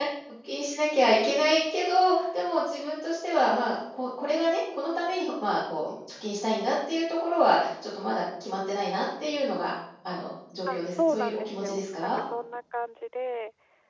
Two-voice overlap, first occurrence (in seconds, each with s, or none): 10.7 s